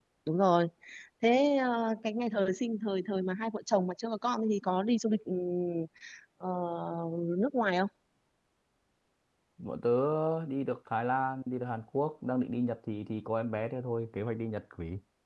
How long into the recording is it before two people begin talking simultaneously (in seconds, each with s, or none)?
none